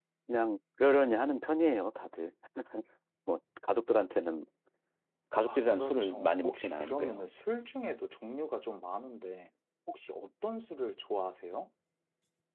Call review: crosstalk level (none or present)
present